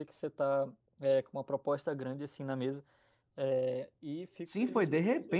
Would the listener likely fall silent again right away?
No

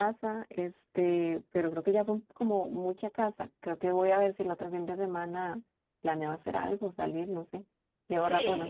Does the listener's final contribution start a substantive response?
Yes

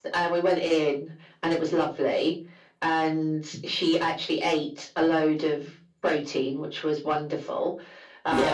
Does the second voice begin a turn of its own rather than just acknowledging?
No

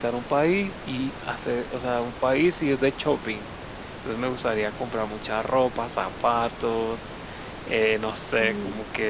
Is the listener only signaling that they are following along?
Yes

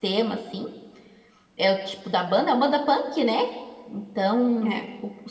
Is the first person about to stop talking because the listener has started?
No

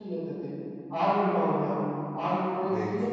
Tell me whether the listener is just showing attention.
Yes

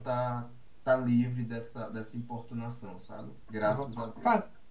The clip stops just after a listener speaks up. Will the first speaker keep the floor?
No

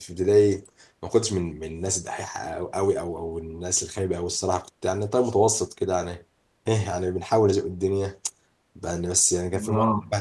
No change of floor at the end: Yes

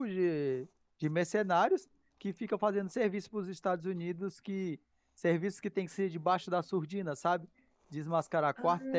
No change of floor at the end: Yes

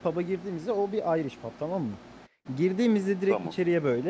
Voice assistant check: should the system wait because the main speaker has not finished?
Yes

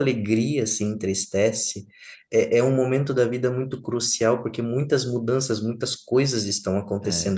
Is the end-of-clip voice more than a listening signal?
Yes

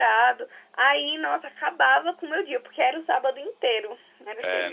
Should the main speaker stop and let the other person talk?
Yes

